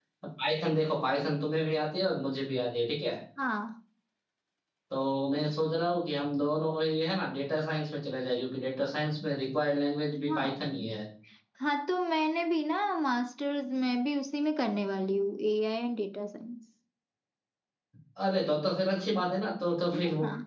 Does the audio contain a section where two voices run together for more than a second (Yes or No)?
No